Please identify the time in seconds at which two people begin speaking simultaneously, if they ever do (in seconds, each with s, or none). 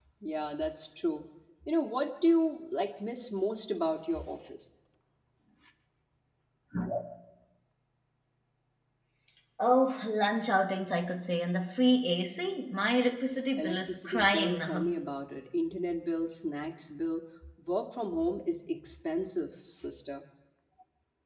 13.6 s